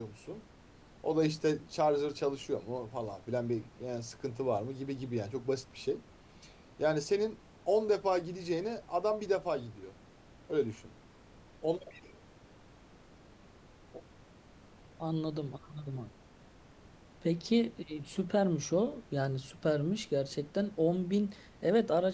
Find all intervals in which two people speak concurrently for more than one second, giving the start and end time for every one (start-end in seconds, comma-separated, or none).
none